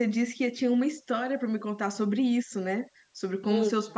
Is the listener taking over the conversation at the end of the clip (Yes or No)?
No